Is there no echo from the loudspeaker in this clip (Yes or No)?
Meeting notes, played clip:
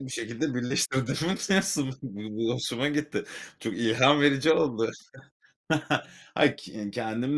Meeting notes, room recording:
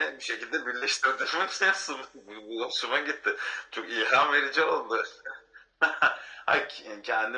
No